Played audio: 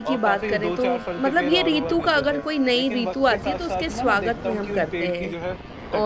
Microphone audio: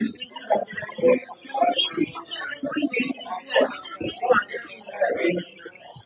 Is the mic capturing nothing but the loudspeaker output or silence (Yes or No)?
Yes